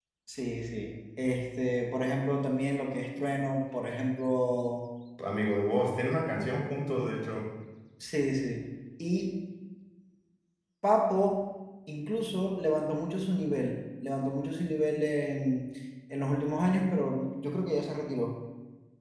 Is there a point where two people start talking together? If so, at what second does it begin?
none

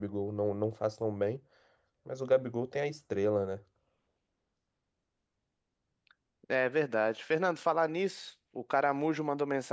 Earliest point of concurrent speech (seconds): none

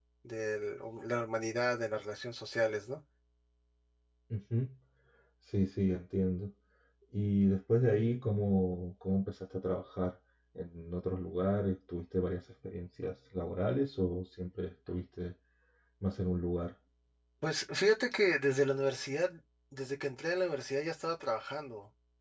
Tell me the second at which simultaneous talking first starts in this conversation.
none

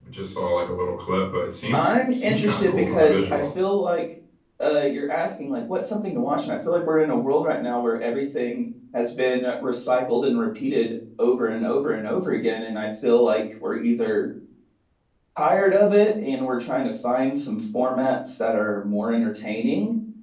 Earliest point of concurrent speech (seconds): 1.7 s

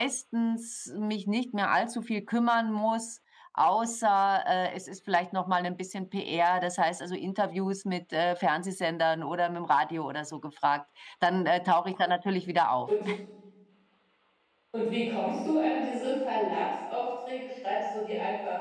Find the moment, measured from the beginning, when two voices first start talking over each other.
none

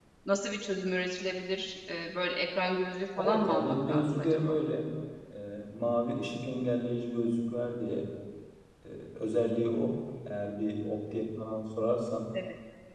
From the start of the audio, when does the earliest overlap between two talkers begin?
3.2 s

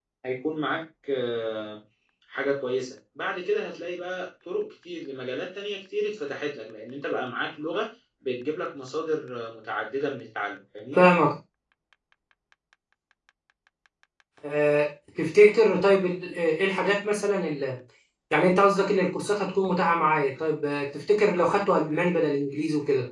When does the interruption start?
none

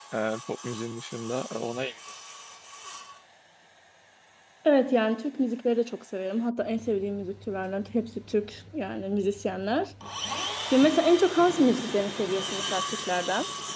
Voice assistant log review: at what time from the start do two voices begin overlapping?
none

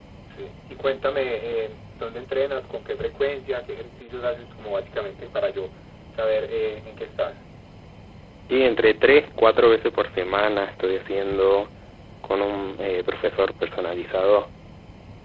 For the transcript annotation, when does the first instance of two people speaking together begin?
none

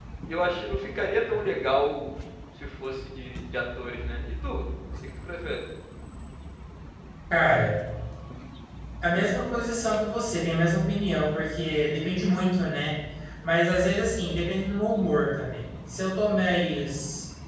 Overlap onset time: none

